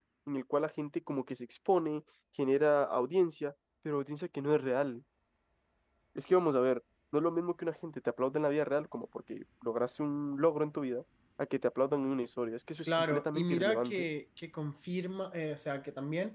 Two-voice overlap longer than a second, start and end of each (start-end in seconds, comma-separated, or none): 12.9-14.1